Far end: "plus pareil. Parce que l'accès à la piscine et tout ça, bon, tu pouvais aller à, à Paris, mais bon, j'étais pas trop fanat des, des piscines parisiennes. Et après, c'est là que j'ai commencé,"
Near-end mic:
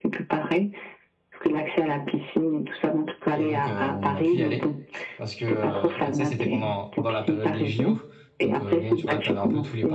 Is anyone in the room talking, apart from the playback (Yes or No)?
Yes